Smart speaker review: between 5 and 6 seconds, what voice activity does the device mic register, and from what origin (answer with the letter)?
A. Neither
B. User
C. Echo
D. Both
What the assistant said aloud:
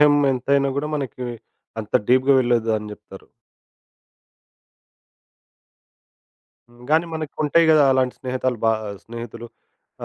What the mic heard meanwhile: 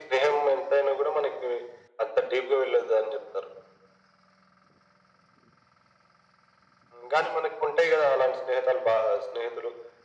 A